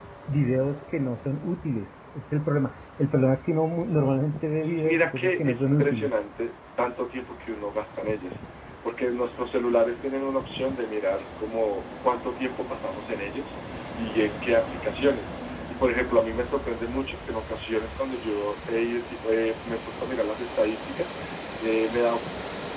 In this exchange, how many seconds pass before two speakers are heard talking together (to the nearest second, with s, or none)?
5 s